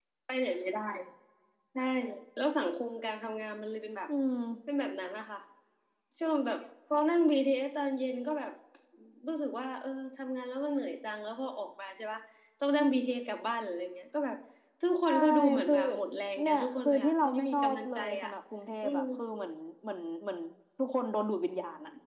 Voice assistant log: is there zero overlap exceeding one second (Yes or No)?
No